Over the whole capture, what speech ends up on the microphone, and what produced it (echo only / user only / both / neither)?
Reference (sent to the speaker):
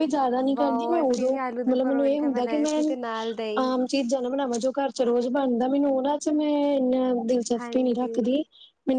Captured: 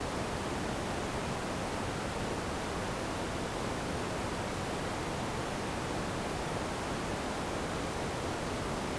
neither